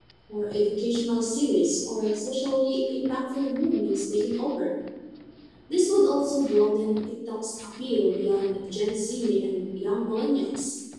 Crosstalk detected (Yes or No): No